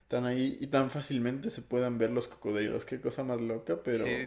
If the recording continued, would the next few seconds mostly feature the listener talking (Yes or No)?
Yes